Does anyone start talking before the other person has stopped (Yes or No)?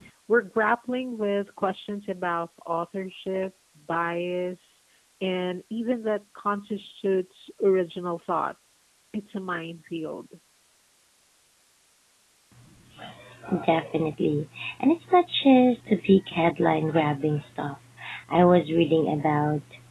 No